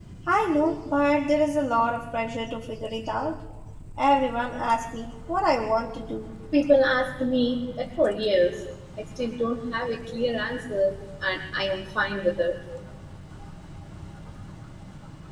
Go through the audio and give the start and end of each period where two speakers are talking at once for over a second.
none

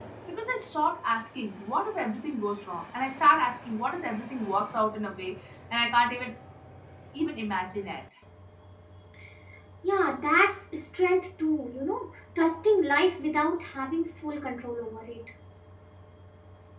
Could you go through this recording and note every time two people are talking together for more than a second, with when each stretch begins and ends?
none

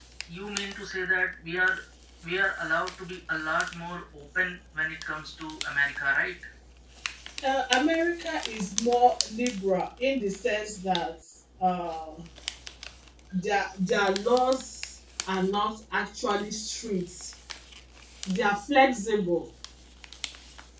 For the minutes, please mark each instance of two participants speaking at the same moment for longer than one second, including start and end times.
none

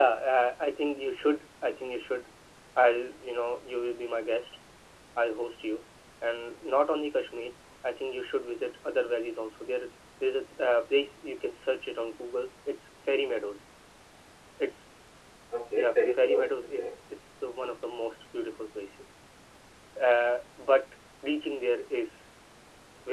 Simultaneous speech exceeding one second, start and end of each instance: 15.7-16.9

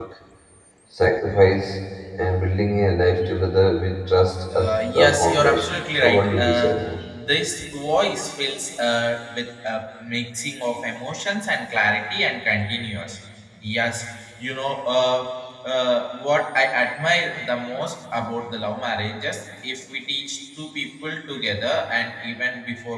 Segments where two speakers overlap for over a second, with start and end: 4.5-6.8

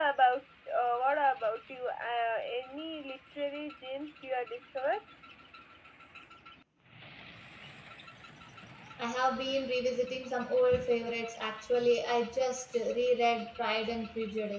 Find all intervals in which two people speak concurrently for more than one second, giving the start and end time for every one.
none

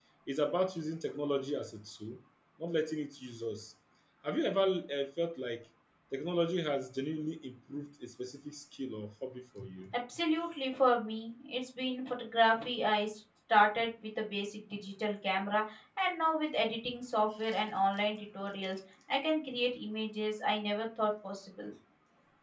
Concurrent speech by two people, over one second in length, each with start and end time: none

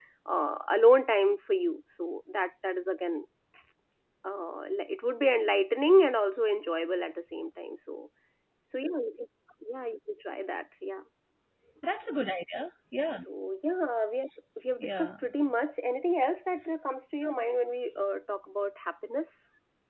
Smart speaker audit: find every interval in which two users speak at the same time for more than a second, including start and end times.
none

